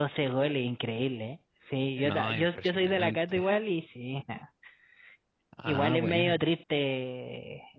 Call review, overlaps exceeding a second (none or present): present